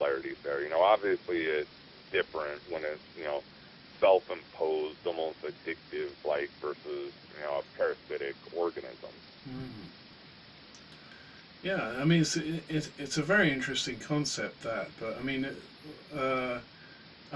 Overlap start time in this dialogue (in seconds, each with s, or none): none